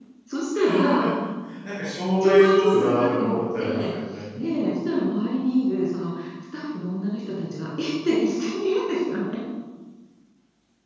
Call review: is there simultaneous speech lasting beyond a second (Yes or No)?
Yes